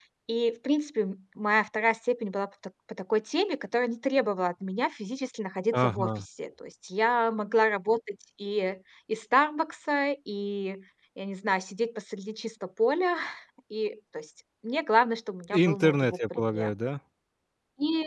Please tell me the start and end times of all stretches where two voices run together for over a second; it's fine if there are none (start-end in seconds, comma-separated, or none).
15.5-16.7